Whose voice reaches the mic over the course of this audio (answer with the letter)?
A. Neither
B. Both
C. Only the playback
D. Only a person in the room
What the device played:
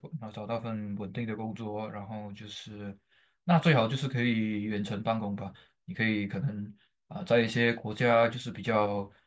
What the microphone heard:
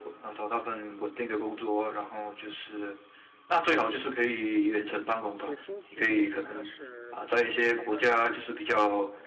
B